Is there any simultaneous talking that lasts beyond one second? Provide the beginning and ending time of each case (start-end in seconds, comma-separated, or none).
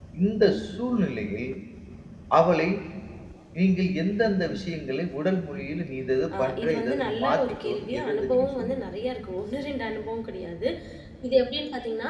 6.4-8.8